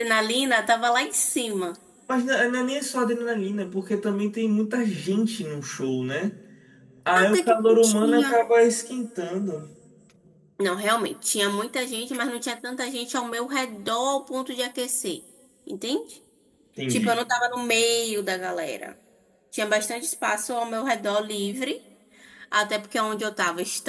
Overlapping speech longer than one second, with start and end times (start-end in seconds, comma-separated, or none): 7.2-8.4